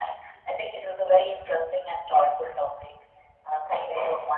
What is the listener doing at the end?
taking over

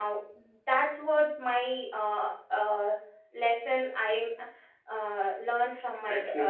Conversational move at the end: taking over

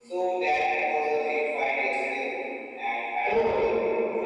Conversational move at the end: listening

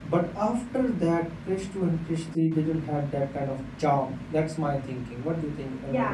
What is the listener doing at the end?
taking over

